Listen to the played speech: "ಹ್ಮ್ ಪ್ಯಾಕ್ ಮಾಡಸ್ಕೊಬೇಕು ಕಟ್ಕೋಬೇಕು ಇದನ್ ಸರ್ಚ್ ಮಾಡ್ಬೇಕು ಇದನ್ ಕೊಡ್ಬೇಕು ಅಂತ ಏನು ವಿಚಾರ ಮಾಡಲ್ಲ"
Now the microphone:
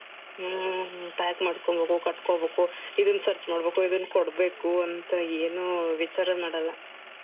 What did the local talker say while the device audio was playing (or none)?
none